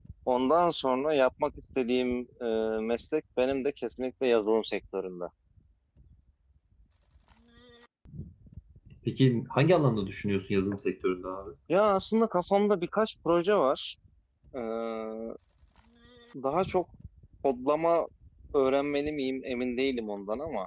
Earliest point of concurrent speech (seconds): none

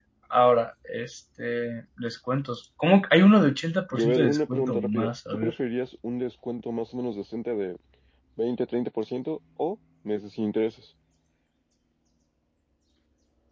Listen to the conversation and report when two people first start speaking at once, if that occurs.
3.9 s

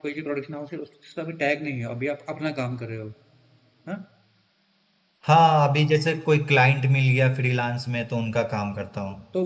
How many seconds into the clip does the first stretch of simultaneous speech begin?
none

